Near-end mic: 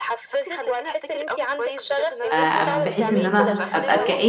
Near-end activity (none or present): present